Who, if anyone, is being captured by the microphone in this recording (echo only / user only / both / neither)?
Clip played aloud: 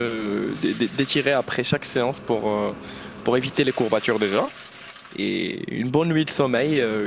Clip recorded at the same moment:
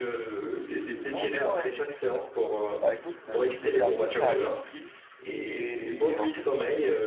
both